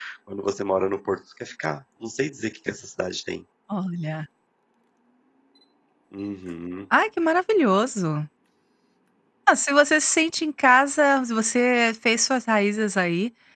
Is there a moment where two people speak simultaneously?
No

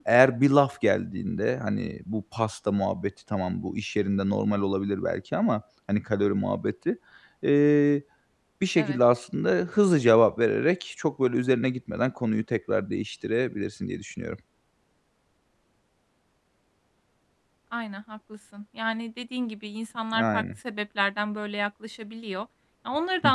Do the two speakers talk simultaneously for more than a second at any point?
No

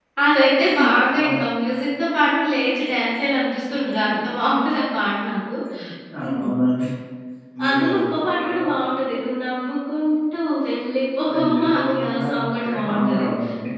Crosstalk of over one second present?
Yes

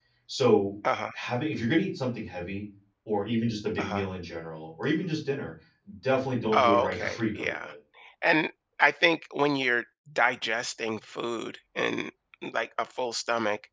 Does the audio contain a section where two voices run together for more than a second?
Yes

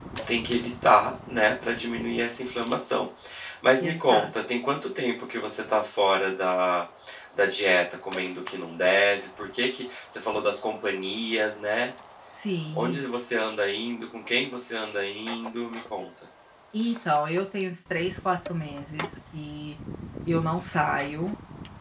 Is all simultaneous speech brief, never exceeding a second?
Yes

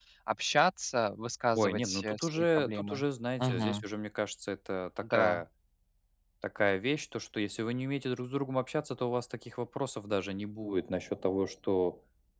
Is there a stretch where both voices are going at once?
Yes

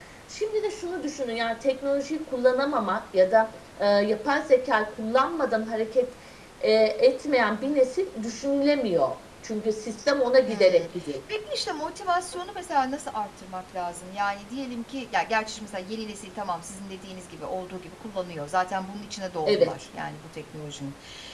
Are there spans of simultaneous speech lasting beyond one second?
No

